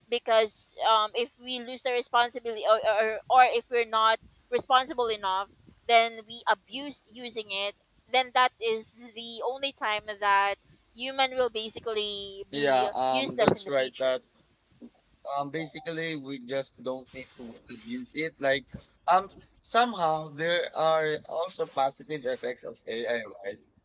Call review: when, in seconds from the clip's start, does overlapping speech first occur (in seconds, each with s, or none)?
12.5 s